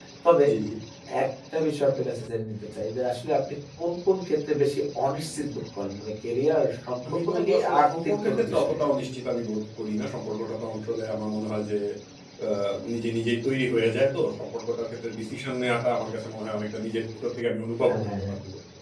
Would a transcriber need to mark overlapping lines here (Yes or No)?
Yes